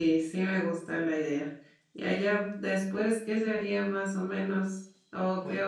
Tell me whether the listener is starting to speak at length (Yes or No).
No